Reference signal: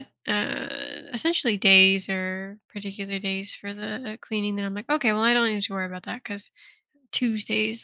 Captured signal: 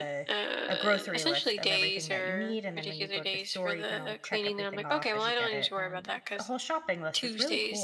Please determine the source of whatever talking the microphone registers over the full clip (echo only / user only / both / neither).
both